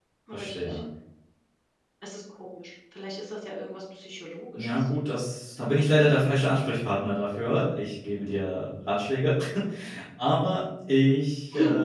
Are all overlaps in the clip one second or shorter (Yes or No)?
Yes